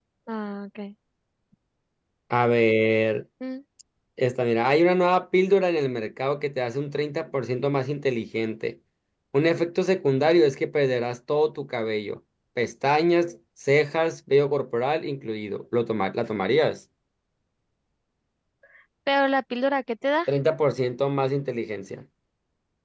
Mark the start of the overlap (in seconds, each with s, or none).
none